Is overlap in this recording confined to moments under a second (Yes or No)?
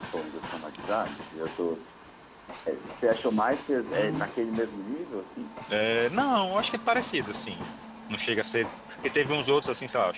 Yes